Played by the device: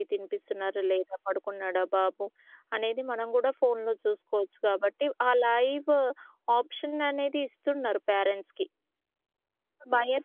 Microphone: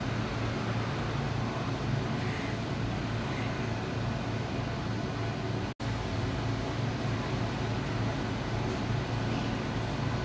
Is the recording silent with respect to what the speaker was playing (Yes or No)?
Yes